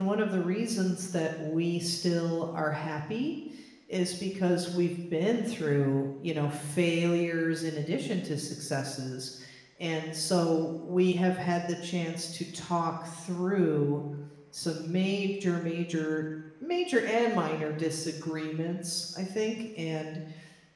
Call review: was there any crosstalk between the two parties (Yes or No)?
No